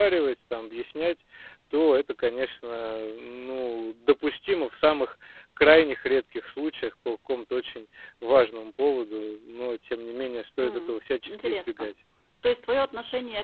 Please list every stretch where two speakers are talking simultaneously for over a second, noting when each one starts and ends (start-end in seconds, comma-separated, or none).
10.6-11.9